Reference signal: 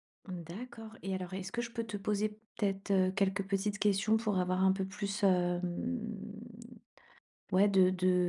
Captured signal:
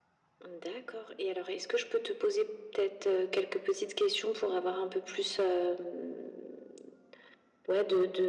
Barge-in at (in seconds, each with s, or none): none